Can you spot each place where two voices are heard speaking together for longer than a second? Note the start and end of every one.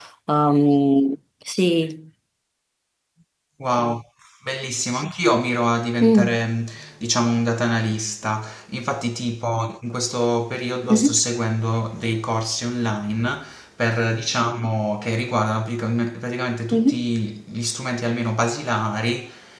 none

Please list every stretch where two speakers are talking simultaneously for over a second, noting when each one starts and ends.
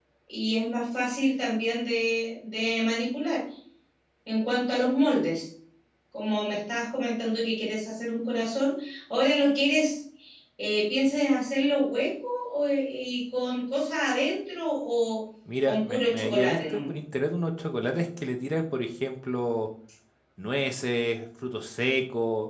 15.7-16.9

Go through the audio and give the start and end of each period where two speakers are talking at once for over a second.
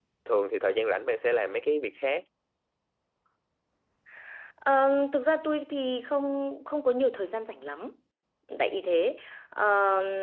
none

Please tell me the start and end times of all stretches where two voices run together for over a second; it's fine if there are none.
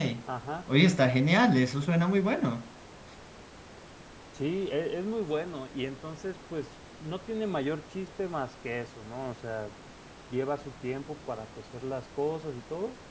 none

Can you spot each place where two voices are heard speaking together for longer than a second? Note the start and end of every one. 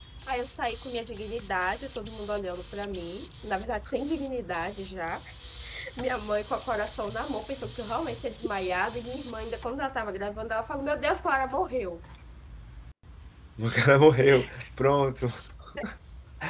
none

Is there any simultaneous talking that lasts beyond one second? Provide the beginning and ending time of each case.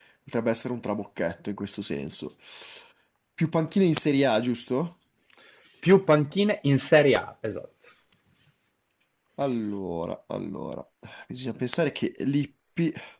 none

